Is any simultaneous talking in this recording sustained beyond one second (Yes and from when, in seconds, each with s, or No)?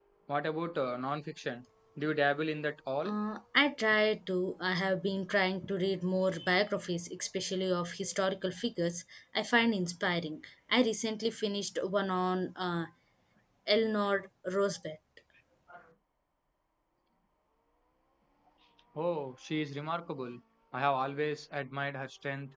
No